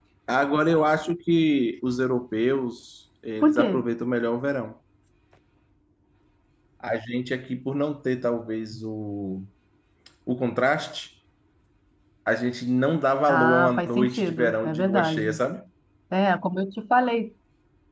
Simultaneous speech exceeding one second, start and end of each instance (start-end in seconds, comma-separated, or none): 13.3-15.3